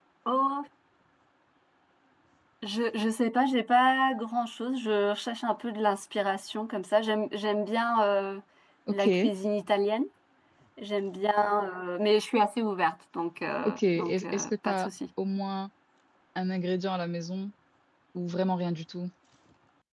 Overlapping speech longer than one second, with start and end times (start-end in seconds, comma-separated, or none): 13.6-14.9